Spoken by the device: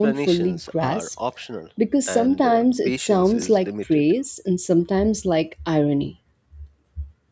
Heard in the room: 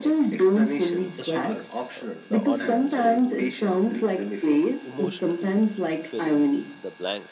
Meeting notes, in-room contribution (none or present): present